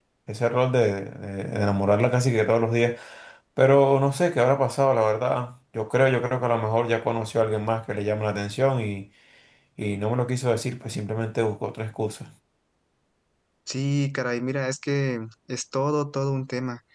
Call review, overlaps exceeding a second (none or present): none